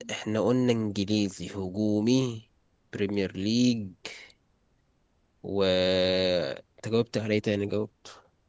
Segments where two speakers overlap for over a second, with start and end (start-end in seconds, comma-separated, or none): none